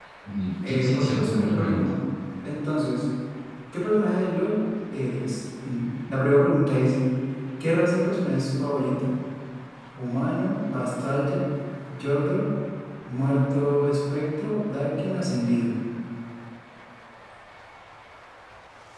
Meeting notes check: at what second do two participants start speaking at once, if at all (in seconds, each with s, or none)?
0.6 s